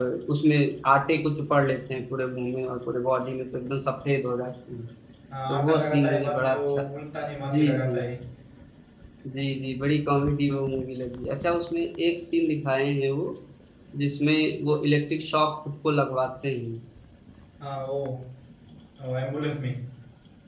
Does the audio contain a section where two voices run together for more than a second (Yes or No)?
Yes